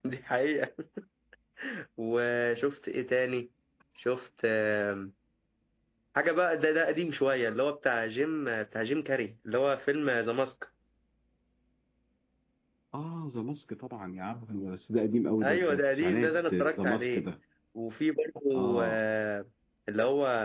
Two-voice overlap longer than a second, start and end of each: 15.4-17.2

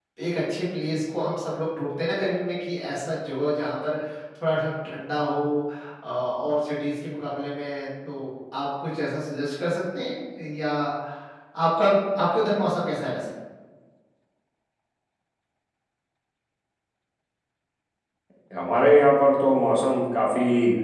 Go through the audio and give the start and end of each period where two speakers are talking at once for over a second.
none

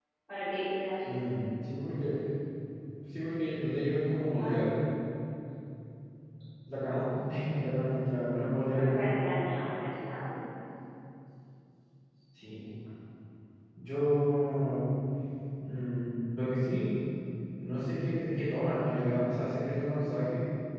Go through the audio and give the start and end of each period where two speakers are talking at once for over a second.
none

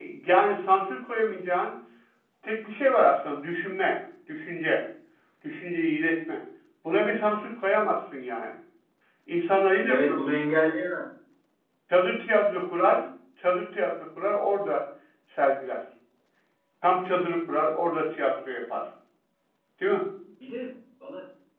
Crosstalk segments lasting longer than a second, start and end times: none

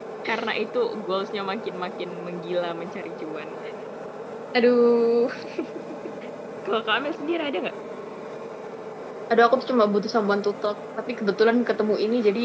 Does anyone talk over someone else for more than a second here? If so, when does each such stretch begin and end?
none

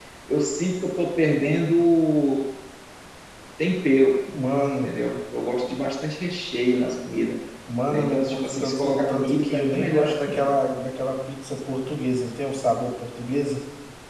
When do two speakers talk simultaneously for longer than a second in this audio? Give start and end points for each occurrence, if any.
7.9-10.5

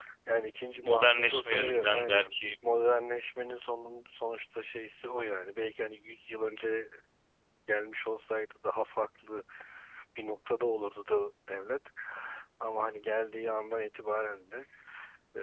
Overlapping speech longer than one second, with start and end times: 0.8-2.3

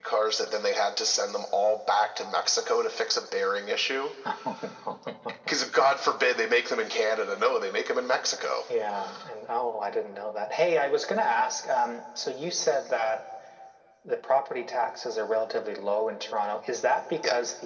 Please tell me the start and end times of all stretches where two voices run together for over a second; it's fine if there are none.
none

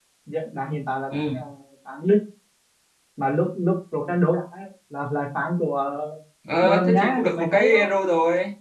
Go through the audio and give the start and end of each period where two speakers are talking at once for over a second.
6.6-7.9

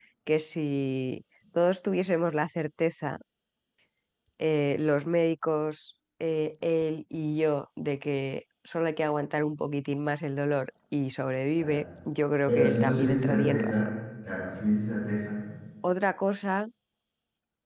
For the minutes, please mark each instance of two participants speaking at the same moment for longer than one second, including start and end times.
12.5-13.9

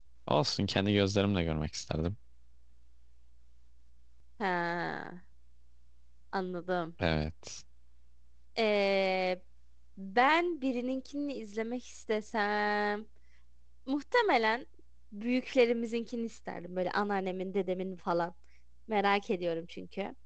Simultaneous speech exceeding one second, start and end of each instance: none

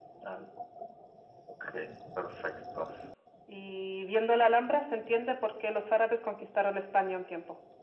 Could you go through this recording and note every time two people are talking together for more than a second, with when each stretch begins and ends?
none

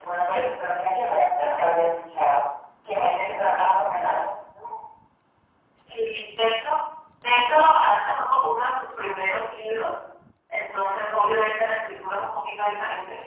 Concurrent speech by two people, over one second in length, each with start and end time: none

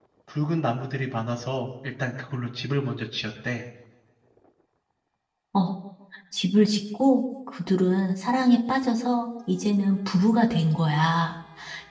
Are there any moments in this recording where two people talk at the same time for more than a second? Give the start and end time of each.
none

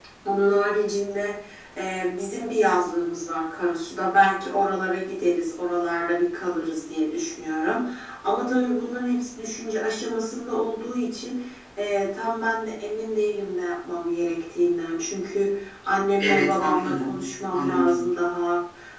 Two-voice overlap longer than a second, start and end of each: 16.2-18.1

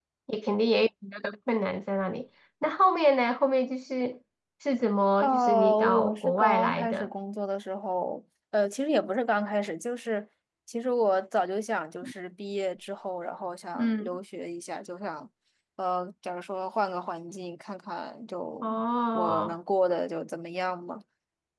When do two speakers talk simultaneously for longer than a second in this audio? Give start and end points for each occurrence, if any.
5.2-7.1

